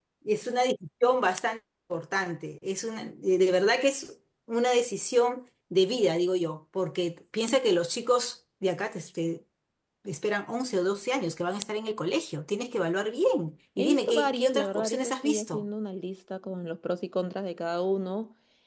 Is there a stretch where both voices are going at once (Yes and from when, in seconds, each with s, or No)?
Yes, from 13.8 s